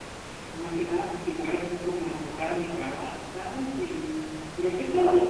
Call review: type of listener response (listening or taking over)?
listening